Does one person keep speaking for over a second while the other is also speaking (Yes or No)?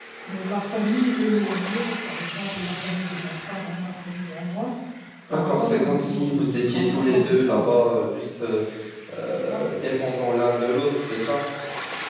Yes